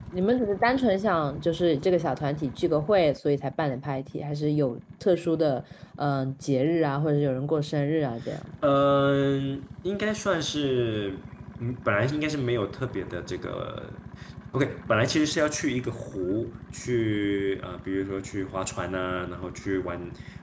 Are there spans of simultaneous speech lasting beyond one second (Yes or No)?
No